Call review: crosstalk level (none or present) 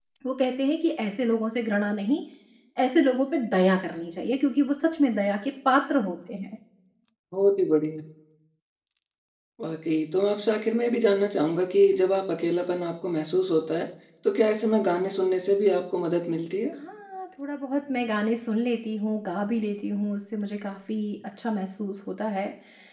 none